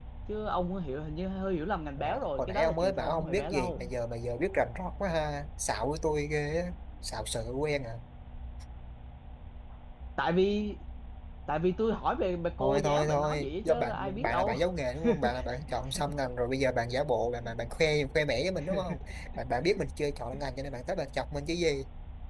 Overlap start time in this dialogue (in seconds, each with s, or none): 2.0 s